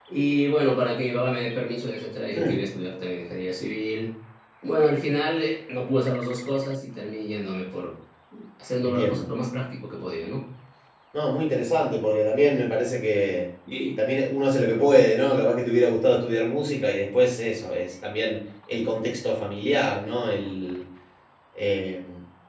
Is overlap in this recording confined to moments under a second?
Yes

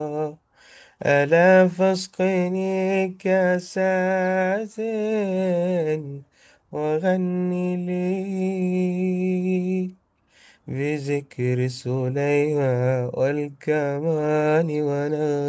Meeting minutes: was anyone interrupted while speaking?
No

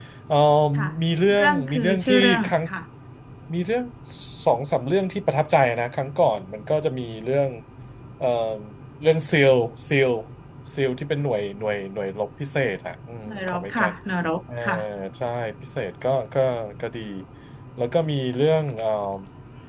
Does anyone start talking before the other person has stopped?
Yes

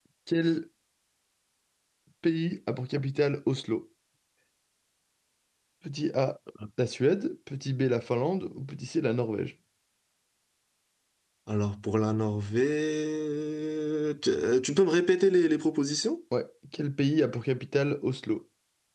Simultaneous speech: No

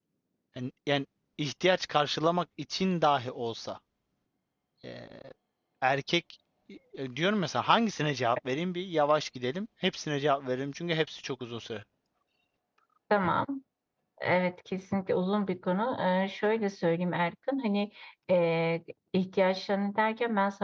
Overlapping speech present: No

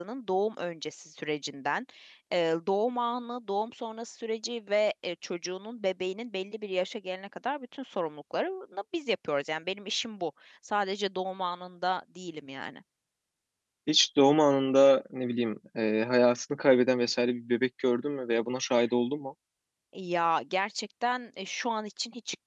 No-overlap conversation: Yes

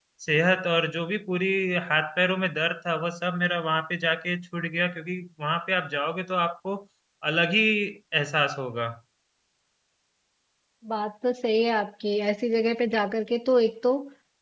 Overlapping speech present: No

